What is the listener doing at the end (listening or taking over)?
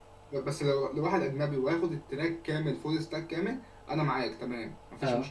listening